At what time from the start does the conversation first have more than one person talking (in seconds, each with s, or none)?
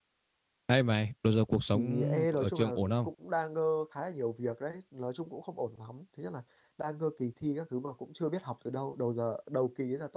1.7 s